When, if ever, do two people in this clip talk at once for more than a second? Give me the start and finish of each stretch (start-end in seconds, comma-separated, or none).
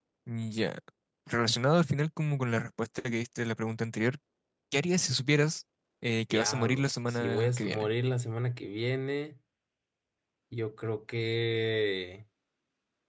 6.3-7.9